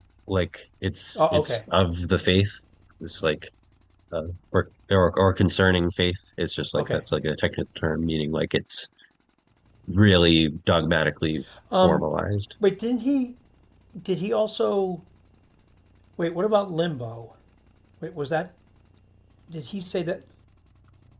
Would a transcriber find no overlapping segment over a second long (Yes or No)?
Yes